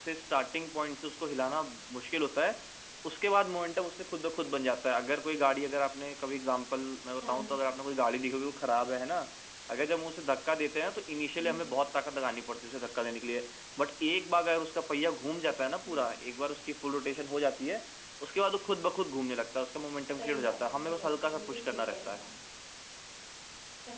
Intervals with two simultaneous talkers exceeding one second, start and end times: 20.2-22.2

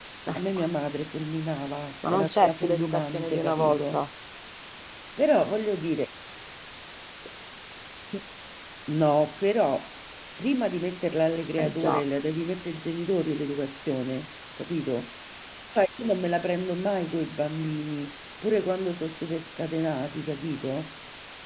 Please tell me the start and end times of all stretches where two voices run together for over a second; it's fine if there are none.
2.1-4.0

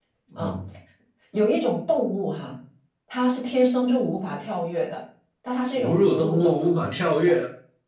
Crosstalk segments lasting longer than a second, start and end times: 5.8-7.3

